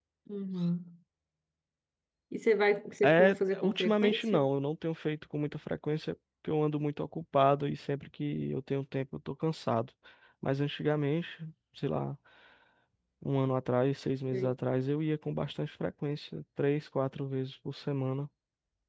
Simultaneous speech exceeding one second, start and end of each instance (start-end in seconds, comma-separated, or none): 3.0-4.5